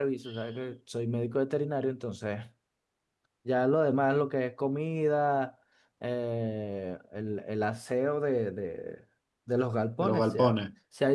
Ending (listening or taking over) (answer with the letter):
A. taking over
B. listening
B